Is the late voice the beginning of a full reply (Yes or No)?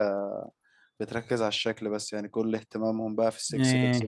No